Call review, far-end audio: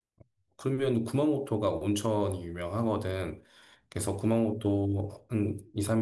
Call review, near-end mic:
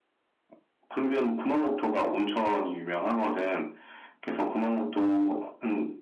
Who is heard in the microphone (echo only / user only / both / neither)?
echo only